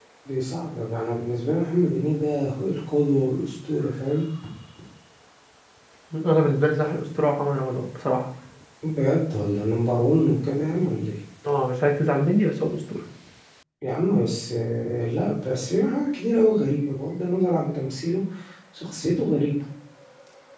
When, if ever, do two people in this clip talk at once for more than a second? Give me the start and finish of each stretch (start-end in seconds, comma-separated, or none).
none